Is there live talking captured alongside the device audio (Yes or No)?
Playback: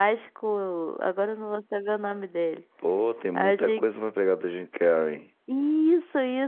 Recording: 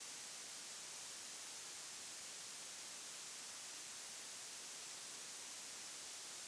No